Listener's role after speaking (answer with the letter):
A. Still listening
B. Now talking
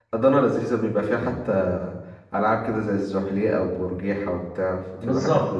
B